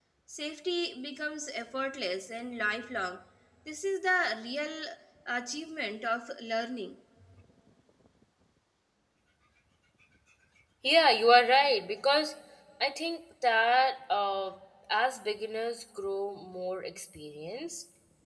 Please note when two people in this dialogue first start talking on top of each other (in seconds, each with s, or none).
none